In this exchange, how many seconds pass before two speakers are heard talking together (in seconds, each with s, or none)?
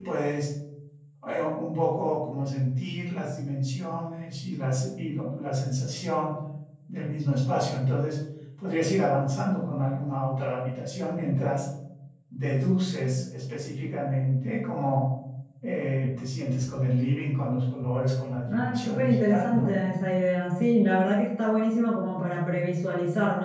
18.5 s